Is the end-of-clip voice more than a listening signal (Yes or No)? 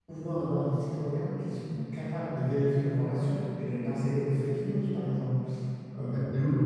No